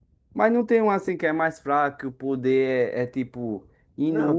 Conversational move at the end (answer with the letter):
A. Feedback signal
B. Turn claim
B